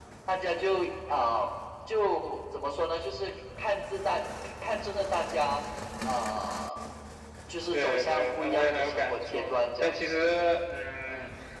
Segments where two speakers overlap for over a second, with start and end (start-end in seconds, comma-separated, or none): 7.7-10.3